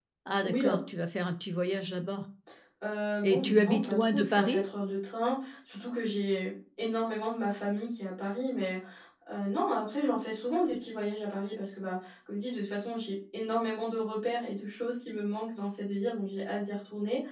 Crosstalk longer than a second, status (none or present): present